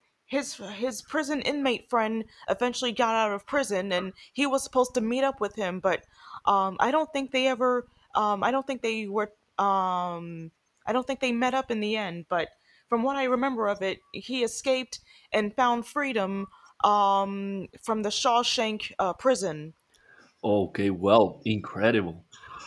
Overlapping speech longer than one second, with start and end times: none

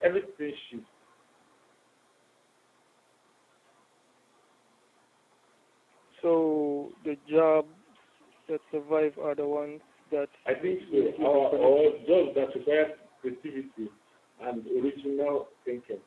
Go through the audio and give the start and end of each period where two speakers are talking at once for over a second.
10.6-11.9

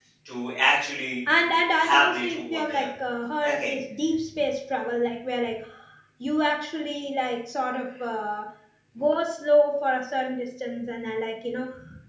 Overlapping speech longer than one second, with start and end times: 1.4-2.9

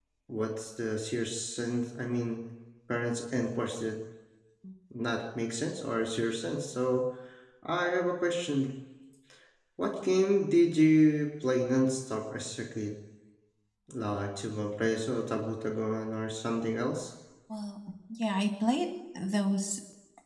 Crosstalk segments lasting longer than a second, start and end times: none

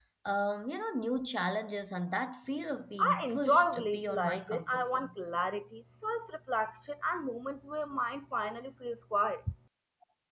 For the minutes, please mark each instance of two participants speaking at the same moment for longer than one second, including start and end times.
3.0-5.1

